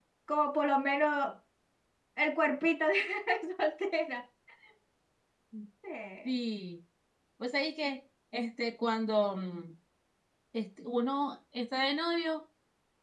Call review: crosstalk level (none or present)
none